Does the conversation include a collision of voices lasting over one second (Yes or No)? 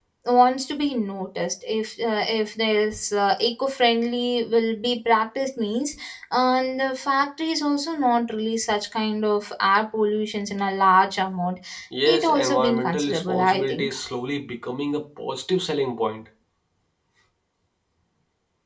Yes